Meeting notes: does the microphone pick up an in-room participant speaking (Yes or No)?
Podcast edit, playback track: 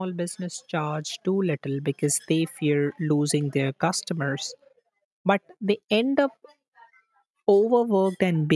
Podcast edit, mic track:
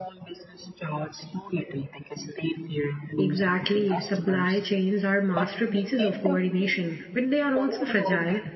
Yes